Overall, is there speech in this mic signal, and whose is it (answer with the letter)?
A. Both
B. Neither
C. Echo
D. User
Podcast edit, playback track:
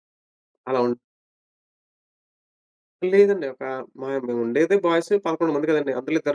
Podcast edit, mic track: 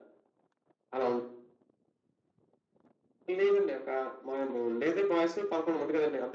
C